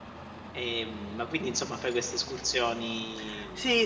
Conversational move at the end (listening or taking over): taking over